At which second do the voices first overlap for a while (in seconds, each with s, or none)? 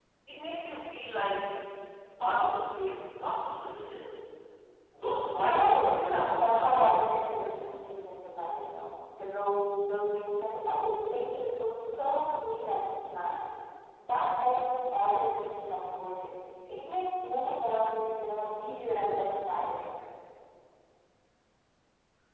5.5 s